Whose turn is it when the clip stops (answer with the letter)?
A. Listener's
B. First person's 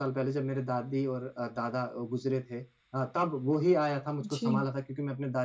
B